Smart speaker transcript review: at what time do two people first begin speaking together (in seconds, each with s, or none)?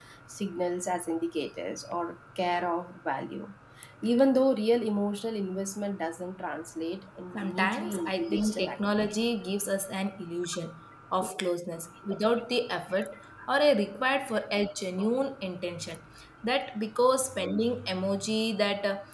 7.4 s